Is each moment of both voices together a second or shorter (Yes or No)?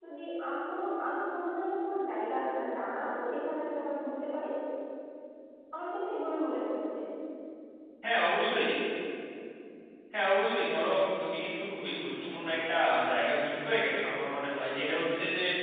Yes